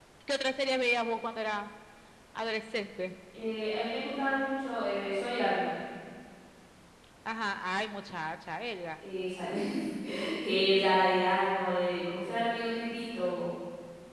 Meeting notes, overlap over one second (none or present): none